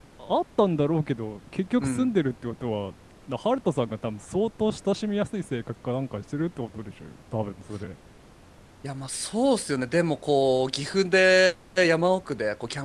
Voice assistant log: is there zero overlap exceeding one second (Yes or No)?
Yes